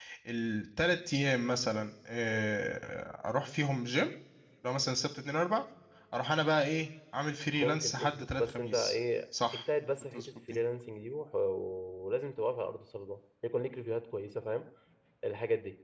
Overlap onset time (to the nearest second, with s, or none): 8 s